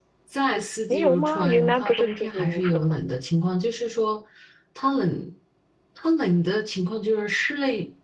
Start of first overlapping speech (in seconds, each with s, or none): 0.9 s